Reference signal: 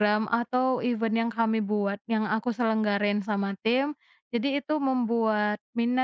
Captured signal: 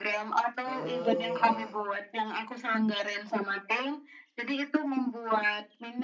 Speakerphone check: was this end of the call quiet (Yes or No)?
No